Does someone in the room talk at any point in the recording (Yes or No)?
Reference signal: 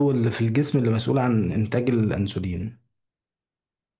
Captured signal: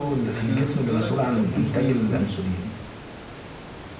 Yes